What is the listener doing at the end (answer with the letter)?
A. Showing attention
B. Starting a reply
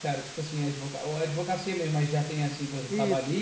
B